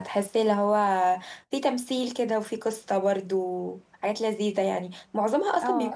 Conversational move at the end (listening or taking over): listening